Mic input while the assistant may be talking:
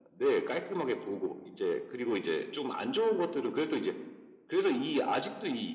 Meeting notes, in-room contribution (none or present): none